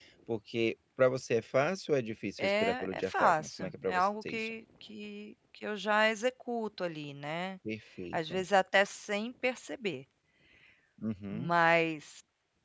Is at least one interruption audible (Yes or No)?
Yes